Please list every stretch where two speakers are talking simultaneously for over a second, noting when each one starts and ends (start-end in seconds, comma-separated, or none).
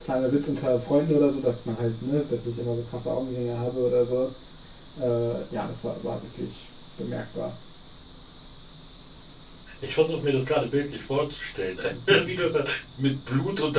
none